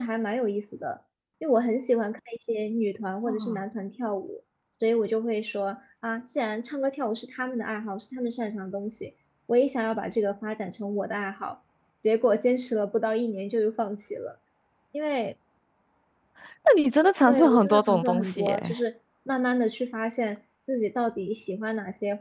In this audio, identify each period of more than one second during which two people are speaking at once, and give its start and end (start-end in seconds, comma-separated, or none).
17.3-18.7